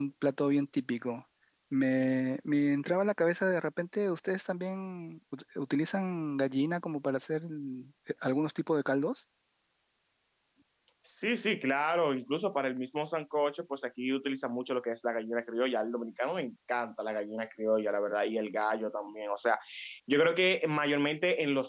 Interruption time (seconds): none

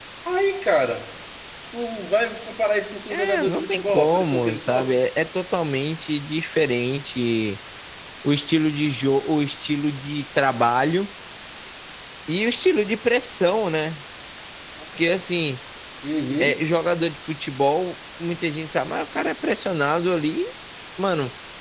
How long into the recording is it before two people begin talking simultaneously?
3.1 s

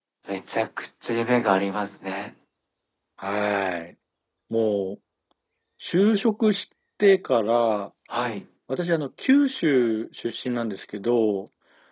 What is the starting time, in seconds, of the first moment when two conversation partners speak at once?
none

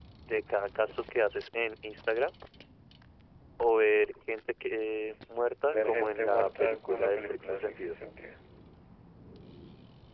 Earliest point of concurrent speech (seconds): 5.7 s

